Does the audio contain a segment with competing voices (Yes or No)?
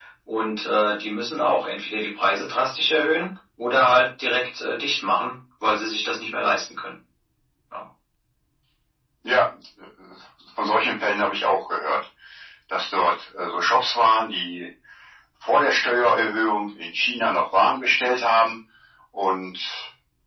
No